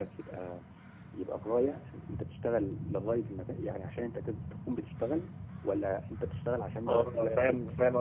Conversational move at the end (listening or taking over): taking over